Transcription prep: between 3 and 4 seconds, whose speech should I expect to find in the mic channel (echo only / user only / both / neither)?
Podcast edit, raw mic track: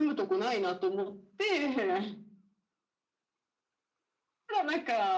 neither